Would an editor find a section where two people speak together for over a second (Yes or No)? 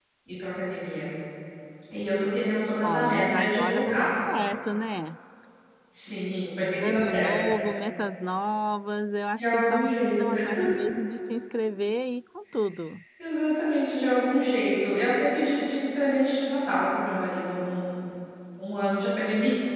Yes